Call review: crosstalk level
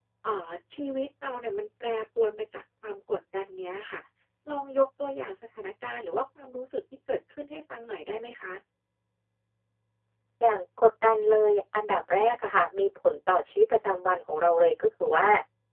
none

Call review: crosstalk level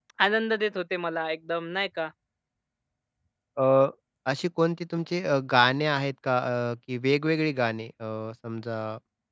none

